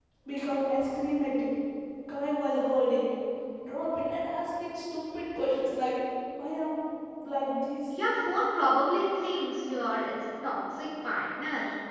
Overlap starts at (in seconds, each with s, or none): none